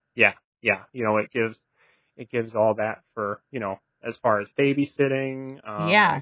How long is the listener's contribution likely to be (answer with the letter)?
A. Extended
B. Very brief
A